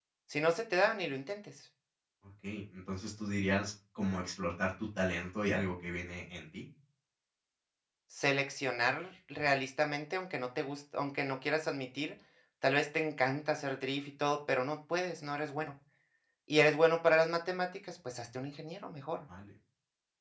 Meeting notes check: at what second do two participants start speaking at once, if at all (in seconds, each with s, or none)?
none